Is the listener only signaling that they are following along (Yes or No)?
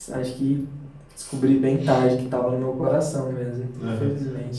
No